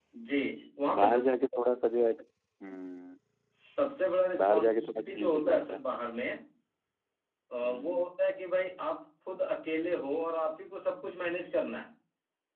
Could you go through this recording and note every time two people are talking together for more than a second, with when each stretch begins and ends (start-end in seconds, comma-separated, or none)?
4.4-5.8